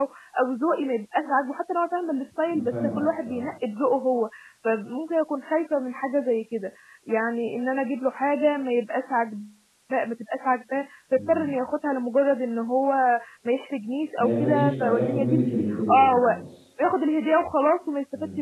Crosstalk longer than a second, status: present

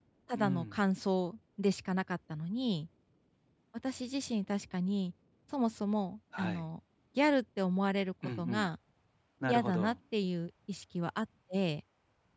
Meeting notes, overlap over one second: none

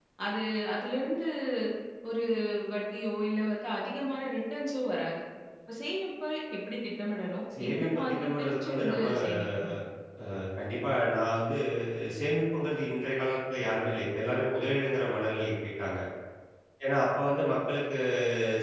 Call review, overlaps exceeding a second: present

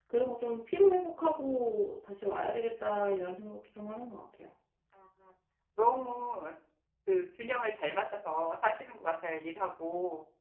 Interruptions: none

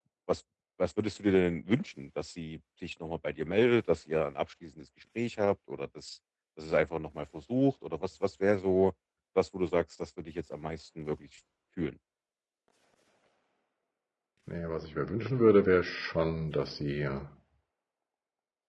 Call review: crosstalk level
none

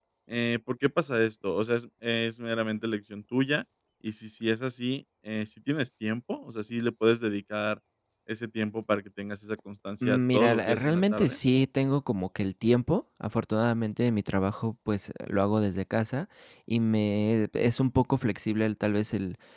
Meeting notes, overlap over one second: present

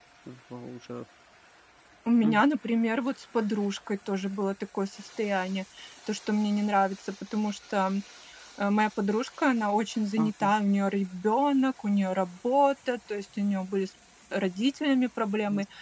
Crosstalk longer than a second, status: none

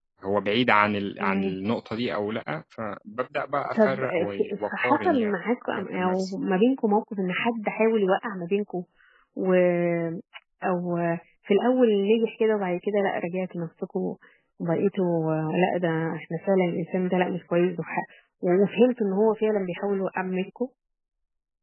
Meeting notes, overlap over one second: present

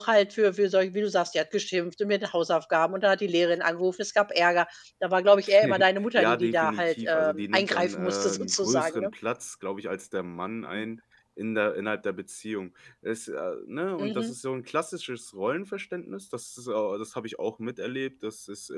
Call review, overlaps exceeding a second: present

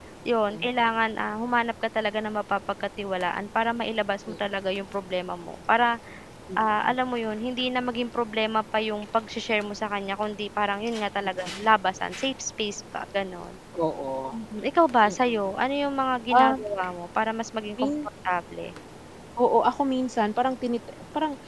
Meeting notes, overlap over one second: none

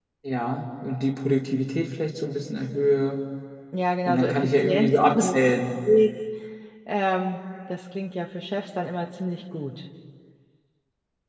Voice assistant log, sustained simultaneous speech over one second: present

